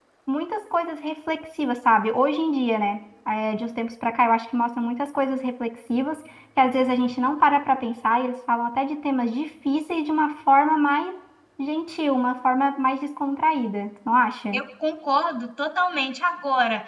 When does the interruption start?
none

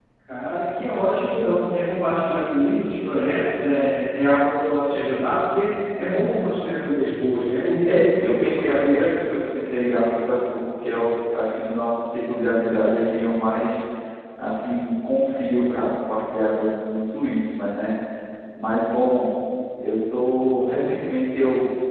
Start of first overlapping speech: 7.9 s

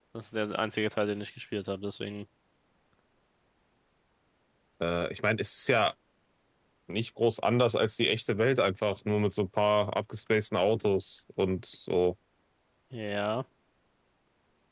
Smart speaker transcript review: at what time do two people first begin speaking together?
none

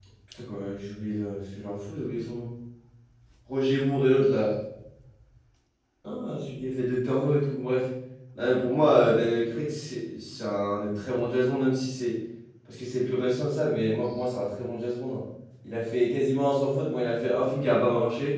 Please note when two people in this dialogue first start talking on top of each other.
none

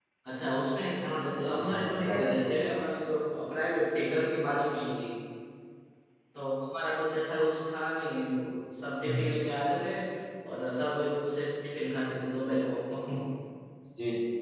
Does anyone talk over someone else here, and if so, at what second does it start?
1.5 s

